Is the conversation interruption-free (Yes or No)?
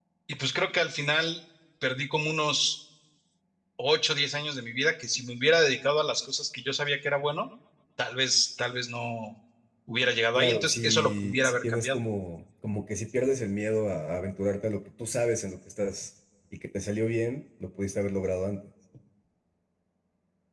No